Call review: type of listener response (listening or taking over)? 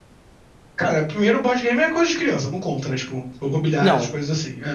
taking over